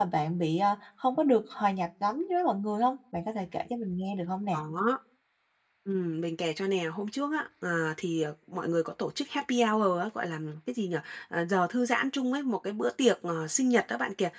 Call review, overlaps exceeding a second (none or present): none